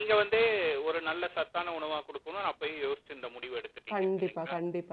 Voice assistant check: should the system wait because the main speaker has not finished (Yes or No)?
No